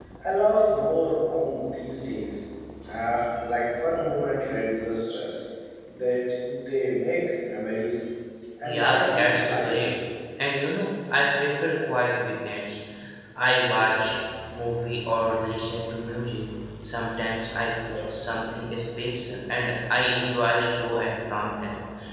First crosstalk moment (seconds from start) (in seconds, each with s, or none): 8.6 s